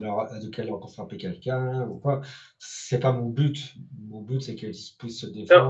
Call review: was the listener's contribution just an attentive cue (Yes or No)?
No